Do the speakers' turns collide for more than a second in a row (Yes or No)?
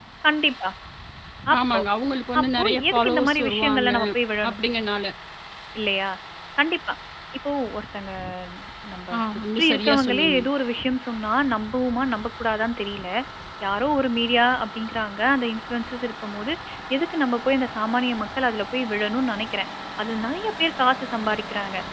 Yes